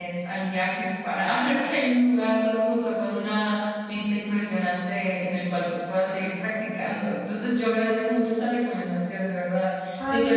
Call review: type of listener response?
listening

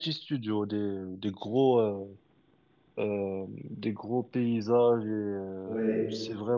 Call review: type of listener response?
listening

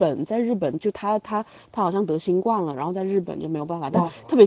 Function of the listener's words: listening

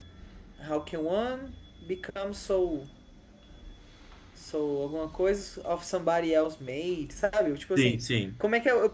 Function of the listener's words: listening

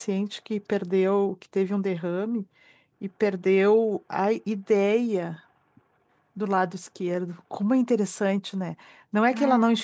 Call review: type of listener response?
listening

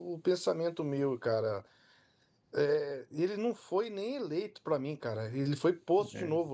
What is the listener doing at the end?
listening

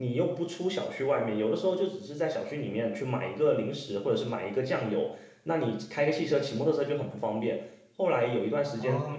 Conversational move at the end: listening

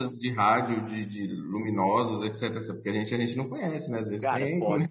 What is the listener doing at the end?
taking over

